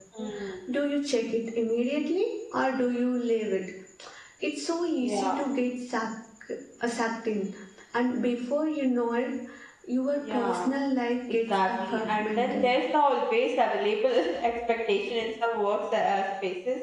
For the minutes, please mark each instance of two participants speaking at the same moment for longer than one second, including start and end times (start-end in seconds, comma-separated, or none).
11.5-12.7